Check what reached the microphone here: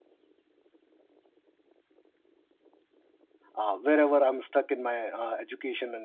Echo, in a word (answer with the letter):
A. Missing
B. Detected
A